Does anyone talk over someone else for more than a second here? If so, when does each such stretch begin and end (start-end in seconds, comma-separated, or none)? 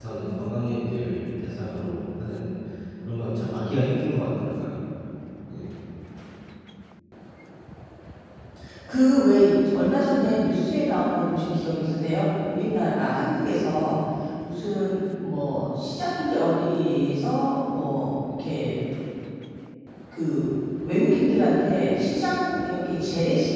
none